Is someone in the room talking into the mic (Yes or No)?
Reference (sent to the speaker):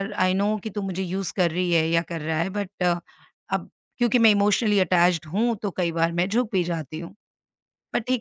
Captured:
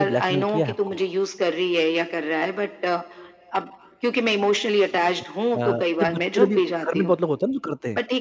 Yes